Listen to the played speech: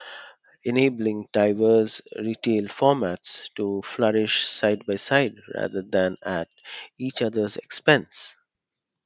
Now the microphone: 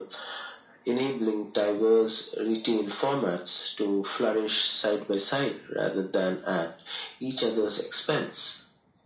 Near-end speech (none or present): none